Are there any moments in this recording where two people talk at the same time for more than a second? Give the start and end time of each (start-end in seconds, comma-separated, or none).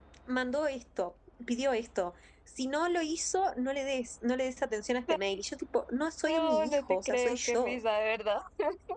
6.3-7.8